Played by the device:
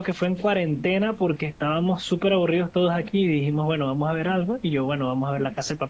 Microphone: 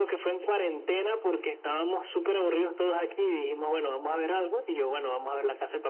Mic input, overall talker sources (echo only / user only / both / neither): echo only